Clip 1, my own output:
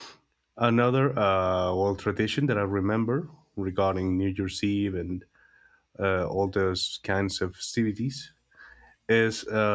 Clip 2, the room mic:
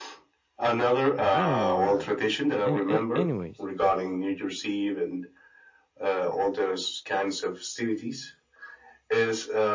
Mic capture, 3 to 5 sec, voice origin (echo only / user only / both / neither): both